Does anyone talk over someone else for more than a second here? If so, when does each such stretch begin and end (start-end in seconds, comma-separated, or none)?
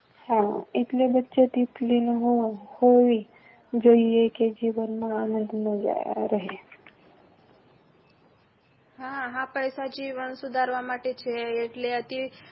none